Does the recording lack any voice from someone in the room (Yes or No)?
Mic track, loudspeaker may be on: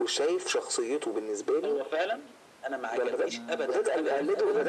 No